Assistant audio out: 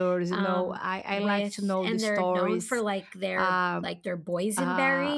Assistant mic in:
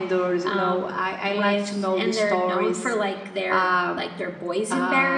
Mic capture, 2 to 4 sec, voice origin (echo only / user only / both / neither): echo only